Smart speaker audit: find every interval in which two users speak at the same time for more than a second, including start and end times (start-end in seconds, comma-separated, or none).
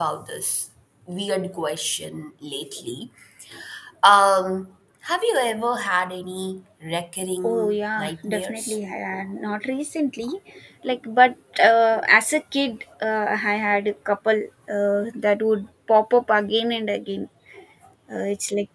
7.4-8.8